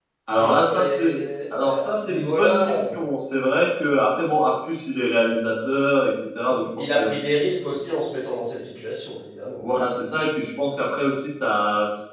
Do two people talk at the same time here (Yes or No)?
Yes